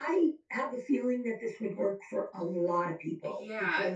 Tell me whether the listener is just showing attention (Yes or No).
No